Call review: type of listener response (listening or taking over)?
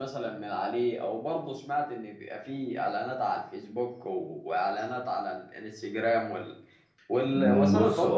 taking over